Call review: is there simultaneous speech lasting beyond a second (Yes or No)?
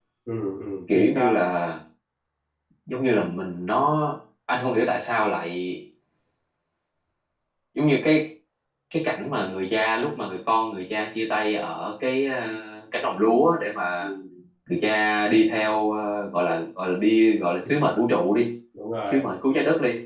No